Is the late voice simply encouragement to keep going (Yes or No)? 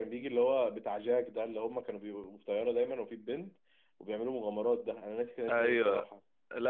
No